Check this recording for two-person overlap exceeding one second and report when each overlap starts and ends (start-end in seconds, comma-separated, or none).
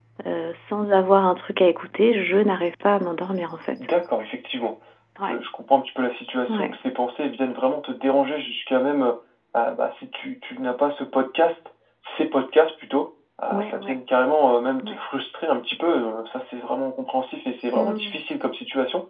none